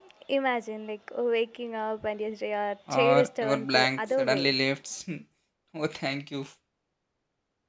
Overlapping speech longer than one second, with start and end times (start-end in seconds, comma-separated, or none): 2.9-4.5